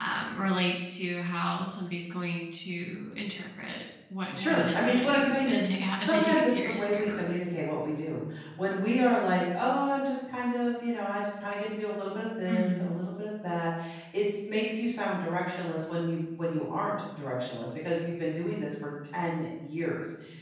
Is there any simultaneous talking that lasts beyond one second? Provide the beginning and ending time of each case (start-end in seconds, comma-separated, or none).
4.3-7.2